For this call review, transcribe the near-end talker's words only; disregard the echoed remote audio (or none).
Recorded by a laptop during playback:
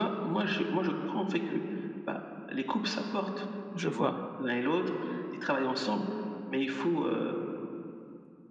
Je vois.